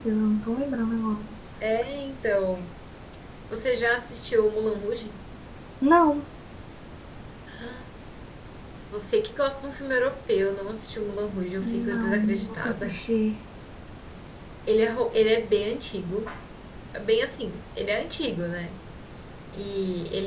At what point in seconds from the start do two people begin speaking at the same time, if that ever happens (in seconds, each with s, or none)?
11.6 s